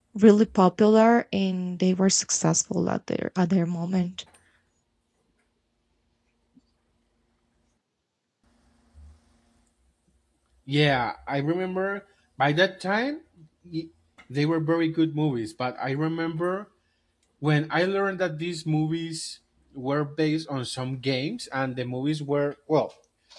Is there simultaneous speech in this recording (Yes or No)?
No